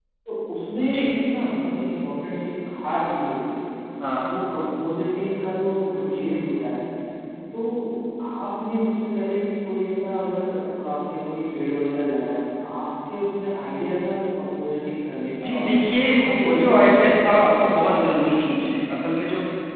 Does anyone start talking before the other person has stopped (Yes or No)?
Yes